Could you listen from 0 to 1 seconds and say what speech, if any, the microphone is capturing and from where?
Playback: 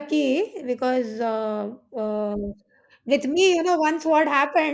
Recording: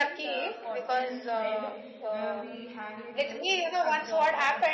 both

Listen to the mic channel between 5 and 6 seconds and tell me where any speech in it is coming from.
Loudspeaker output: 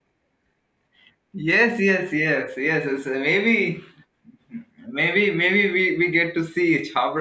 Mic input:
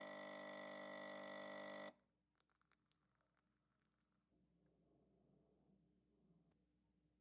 neither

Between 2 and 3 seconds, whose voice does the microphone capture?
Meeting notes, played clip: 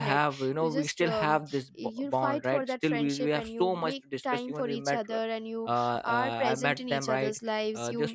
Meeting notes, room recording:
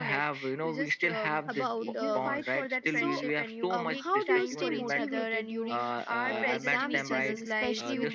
both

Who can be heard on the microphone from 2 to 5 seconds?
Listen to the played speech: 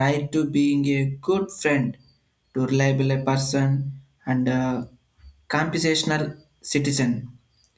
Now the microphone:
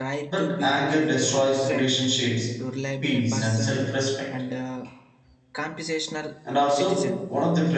both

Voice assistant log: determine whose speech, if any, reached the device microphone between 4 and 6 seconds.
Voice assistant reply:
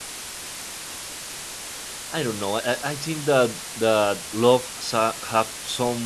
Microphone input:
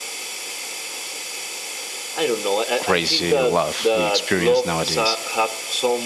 both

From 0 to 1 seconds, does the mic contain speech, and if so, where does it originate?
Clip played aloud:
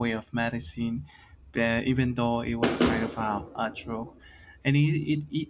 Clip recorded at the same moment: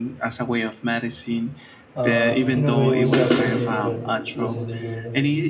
echo only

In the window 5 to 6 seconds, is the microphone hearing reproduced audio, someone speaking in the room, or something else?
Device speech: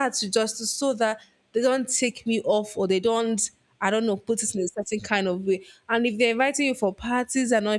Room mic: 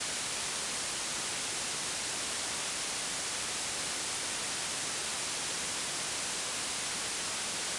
neither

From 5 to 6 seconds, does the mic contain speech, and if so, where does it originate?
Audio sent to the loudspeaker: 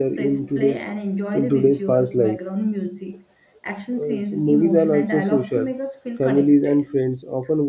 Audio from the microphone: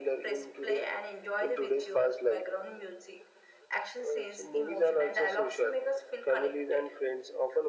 echo only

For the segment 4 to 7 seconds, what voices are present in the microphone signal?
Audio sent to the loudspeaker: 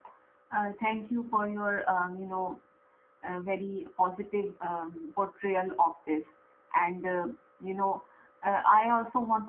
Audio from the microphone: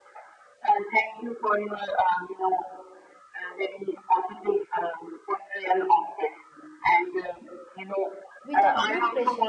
echo only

